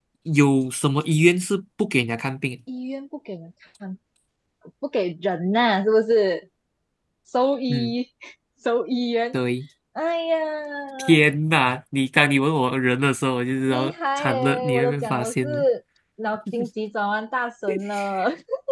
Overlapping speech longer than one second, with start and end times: 13.7-15.6

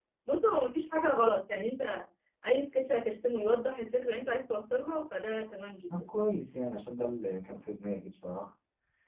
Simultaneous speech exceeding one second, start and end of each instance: none

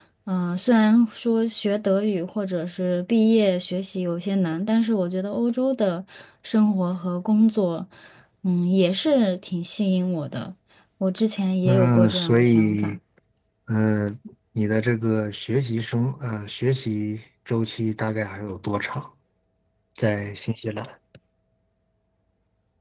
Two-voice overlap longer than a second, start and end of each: 11.7-13.0

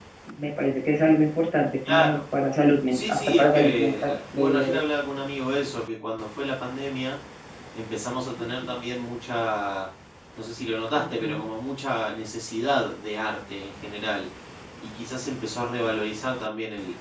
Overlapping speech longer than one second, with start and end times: 2.9-4.8

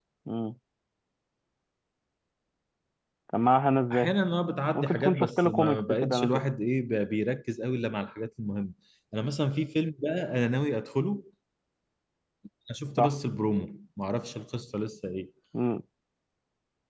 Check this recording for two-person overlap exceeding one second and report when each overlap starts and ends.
4.8-6.4

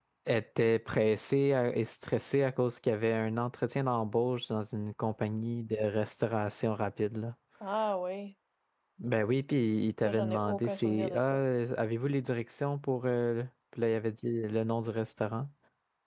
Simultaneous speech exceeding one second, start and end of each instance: 10.0-11.4

